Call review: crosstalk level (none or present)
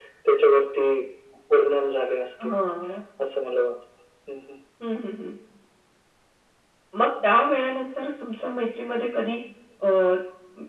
none